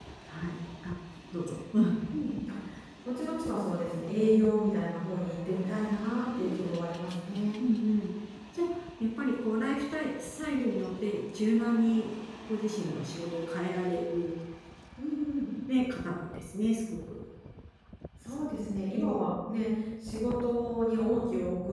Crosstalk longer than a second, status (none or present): none